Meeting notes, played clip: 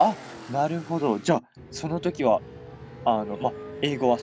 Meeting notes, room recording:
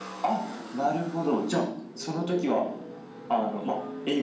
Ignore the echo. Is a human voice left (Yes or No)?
No